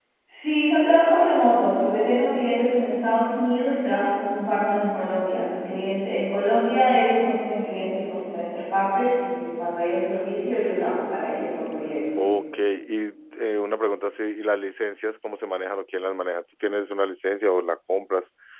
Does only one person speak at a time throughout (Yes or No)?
Yes